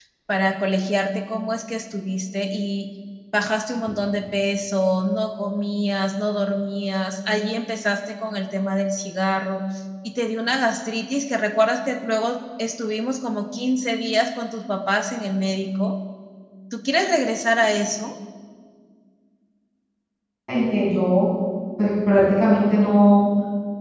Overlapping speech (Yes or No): No